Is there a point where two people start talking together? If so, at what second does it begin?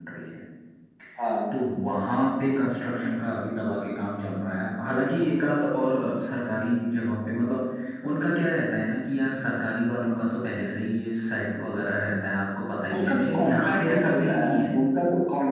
12.9 s

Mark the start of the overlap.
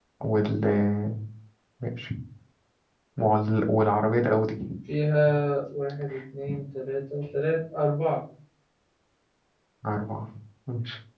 none

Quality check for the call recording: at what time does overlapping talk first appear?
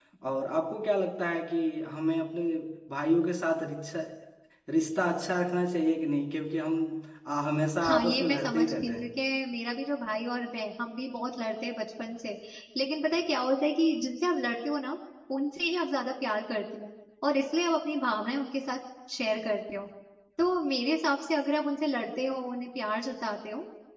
7.8 s

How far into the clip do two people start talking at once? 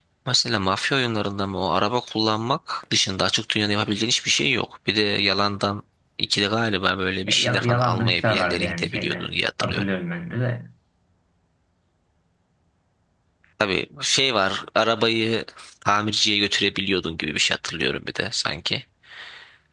7.2 s

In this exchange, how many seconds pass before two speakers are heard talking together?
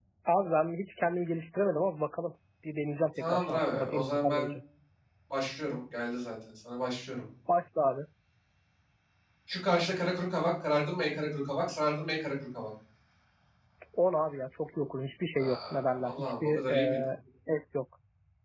3.2 s

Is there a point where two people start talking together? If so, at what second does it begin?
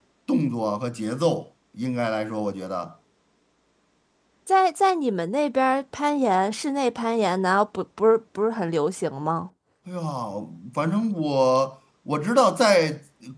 none

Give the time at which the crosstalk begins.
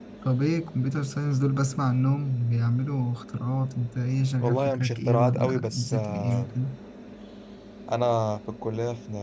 4.4 s

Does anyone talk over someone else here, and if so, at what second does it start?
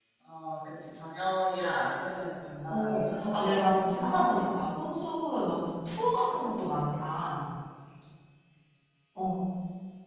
2.7 s

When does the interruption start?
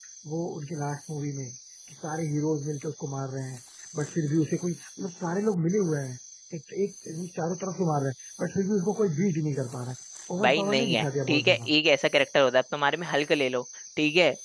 10.4 s

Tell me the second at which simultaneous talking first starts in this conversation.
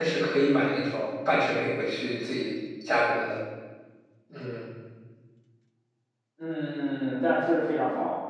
none

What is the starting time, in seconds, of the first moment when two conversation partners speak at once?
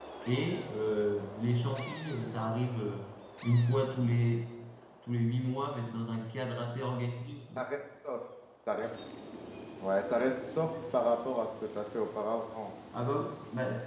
none

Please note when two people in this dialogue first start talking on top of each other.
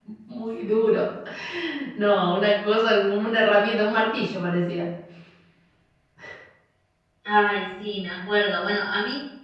none

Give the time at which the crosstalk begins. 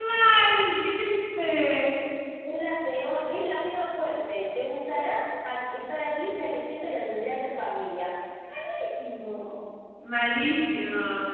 none

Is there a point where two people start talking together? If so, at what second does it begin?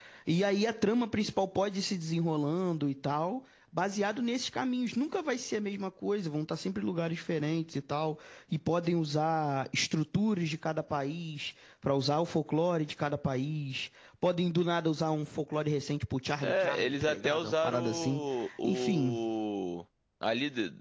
16.4 s

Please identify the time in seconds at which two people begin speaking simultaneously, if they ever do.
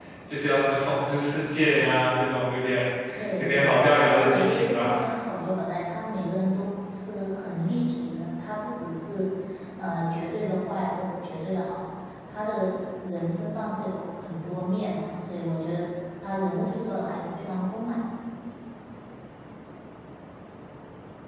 3.4 s

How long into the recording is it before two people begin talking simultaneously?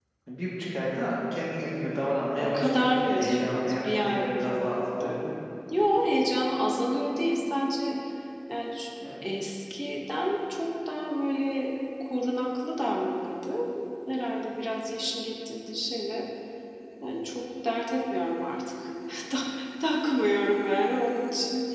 2.4 s

